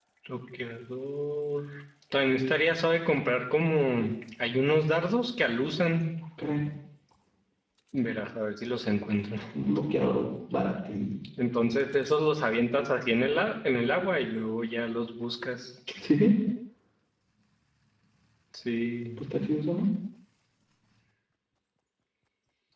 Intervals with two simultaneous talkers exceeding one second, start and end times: none

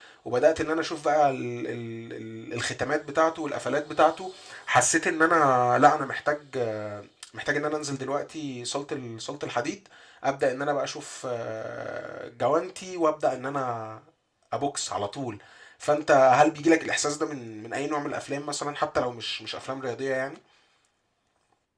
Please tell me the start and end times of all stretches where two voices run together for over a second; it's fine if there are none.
none

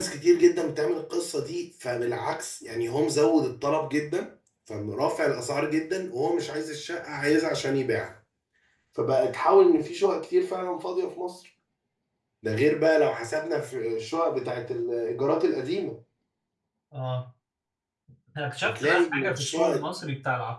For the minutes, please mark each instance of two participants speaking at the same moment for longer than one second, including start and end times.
18.6-19.9

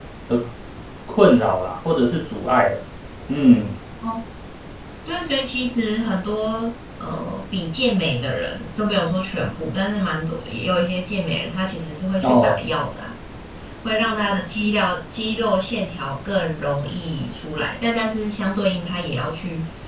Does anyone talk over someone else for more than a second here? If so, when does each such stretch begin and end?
none

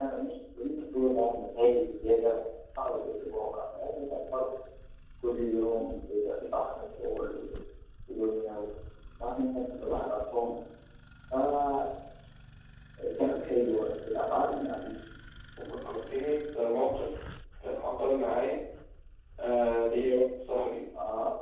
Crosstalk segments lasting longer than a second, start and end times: none

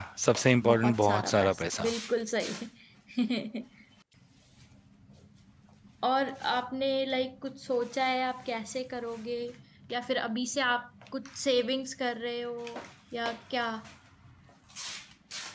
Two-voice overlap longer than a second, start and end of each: 0.7-1.9

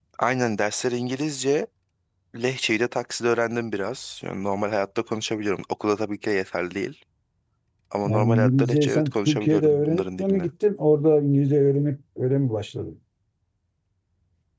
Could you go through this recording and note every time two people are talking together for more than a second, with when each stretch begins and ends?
8.0-10.5

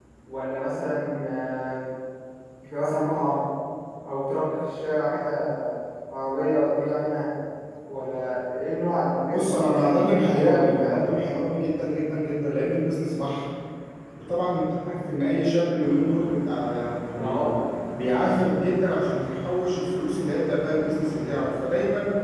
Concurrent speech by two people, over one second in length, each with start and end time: 9.3-11.0

